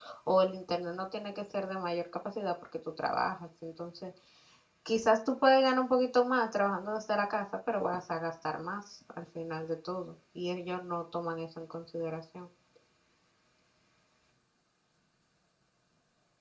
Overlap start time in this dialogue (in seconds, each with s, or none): none